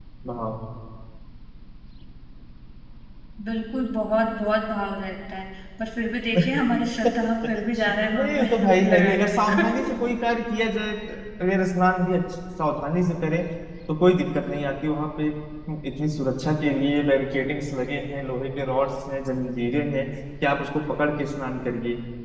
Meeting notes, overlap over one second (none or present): present